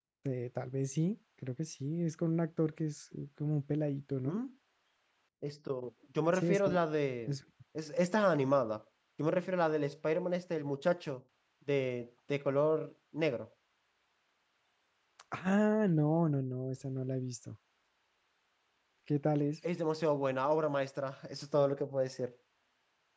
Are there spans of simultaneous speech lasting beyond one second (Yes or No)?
No